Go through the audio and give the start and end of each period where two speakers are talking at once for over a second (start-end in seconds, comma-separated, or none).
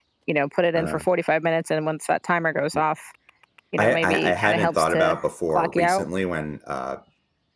3.8-5.1